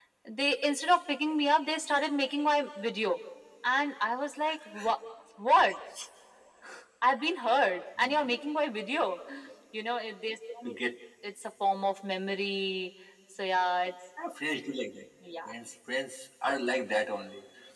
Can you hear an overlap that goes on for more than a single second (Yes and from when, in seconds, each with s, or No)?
No